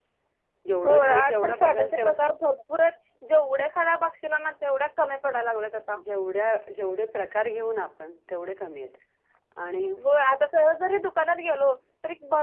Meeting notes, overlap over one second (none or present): present